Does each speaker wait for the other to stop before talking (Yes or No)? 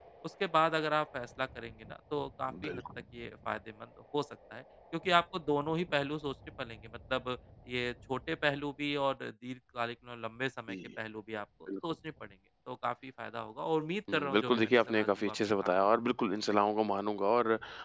No